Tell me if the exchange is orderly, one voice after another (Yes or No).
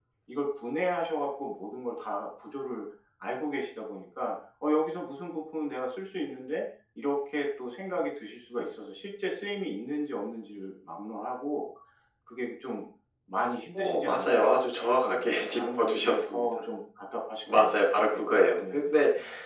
No